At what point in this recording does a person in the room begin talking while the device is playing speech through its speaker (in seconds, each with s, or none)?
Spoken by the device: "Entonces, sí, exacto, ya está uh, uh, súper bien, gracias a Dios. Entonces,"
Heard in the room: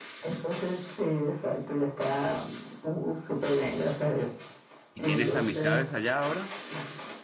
4.9 s